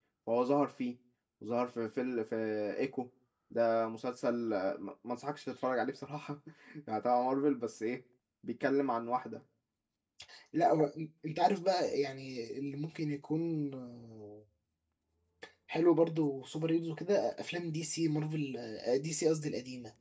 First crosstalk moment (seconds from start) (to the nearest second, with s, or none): none